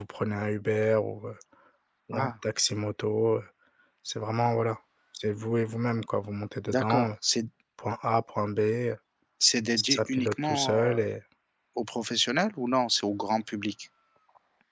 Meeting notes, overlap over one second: present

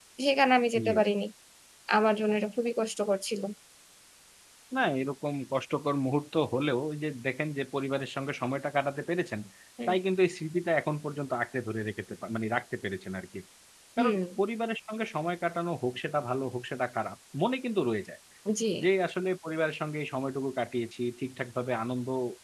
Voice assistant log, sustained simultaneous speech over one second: none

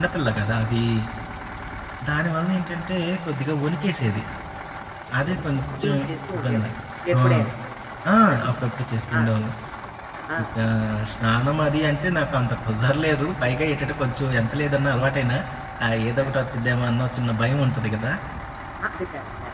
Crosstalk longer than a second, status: none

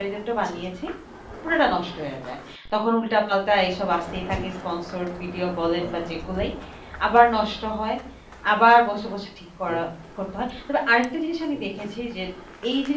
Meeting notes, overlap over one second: none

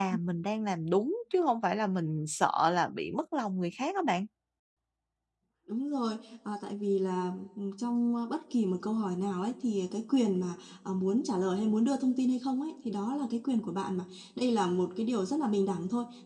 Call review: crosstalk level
none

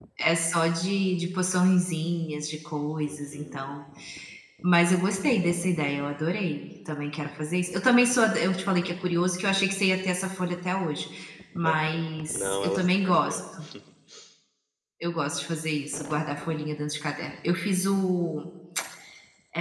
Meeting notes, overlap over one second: present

